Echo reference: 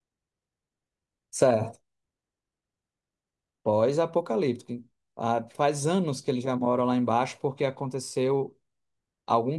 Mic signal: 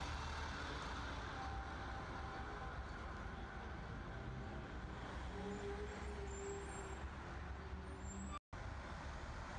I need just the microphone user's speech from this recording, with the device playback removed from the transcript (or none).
none